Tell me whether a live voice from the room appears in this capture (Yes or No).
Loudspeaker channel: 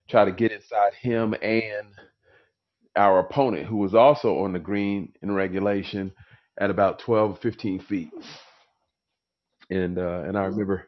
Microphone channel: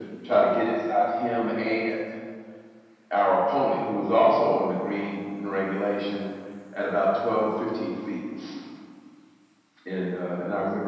No